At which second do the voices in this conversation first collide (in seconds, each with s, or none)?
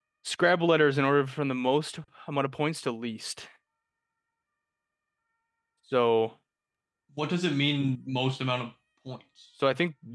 none